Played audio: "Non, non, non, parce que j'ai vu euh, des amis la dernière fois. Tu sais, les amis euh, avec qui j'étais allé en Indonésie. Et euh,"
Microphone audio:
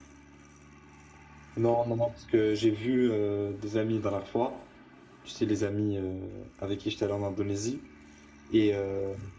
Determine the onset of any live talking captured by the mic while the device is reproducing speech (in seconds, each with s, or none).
none